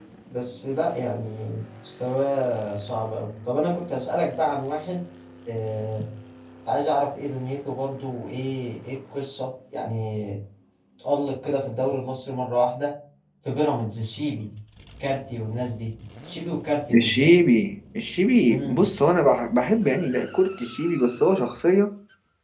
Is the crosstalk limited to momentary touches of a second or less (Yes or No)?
Yes